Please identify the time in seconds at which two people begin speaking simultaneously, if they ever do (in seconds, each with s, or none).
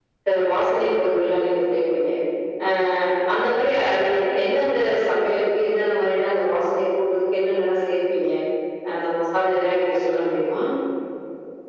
none